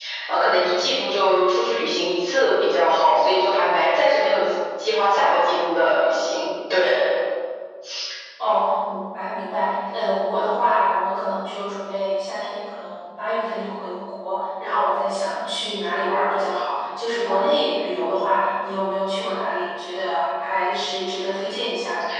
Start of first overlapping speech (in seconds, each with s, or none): none